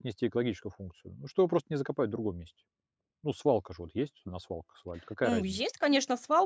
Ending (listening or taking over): taking over